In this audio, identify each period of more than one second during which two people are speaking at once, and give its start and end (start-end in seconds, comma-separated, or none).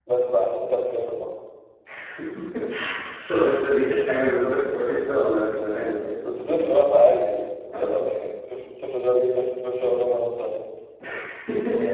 none